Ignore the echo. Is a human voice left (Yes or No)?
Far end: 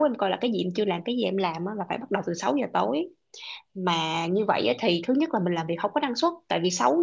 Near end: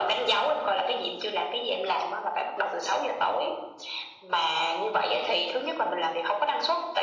No